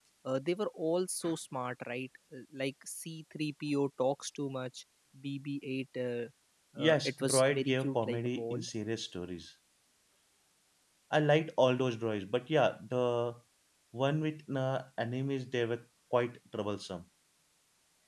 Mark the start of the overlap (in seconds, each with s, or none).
6.8 s